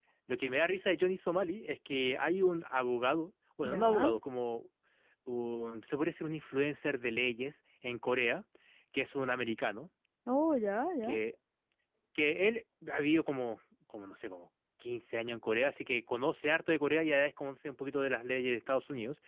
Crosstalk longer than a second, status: none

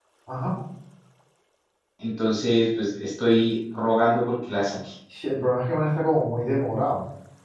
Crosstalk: none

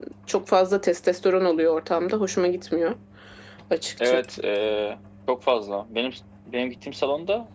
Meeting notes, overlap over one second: none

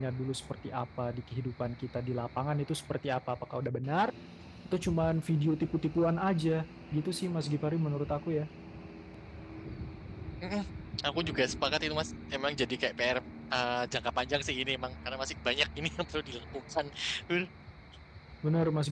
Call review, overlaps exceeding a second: none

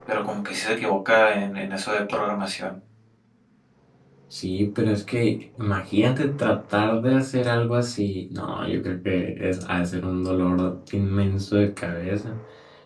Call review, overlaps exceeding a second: none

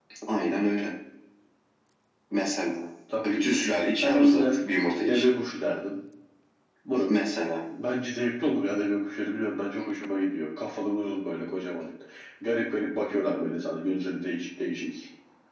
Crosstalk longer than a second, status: none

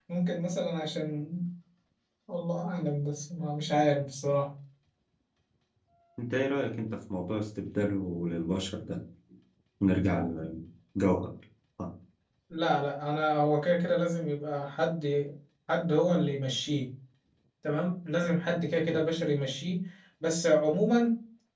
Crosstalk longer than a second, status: none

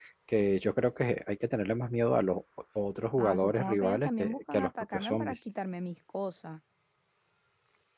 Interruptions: present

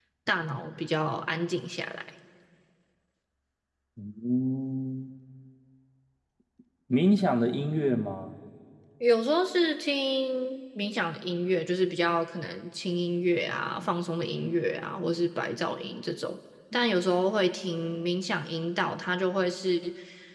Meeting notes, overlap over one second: none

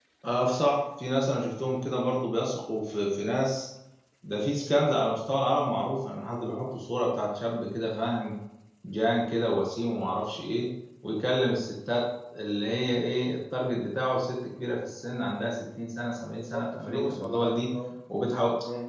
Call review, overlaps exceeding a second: present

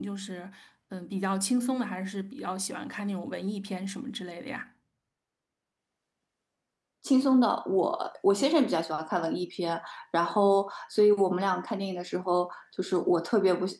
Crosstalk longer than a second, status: none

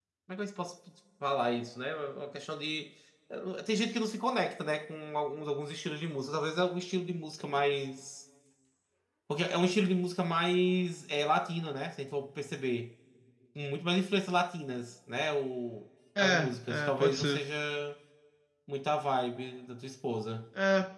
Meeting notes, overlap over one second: present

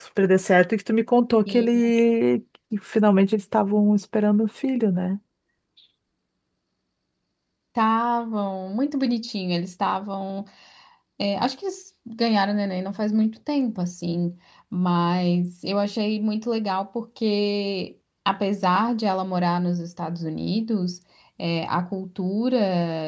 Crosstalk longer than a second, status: none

